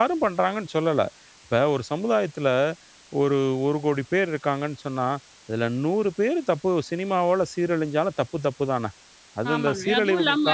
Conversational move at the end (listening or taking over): taking over